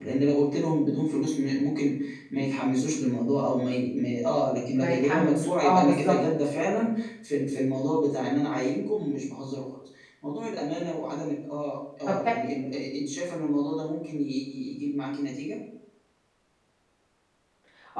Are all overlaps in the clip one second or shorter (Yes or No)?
No